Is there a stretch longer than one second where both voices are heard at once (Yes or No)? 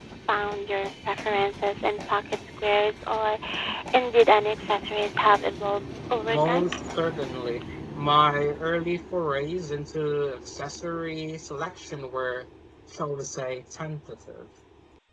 No